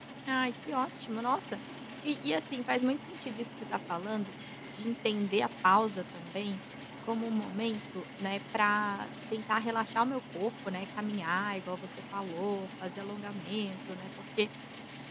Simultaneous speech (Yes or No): No